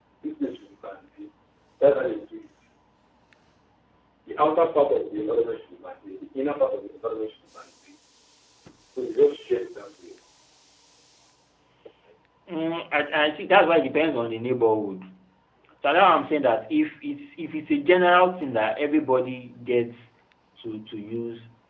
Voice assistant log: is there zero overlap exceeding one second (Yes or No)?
Yes